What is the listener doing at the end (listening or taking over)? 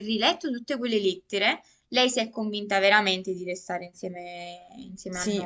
taking over